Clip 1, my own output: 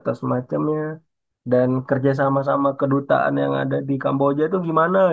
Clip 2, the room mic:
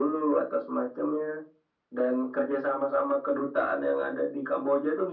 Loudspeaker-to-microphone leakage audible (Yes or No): Yes